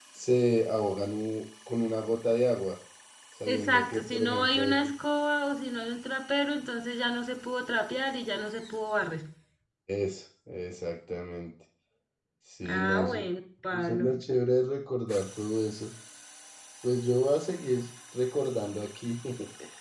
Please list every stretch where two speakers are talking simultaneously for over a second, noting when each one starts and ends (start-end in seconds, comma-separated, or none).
3.5-4.9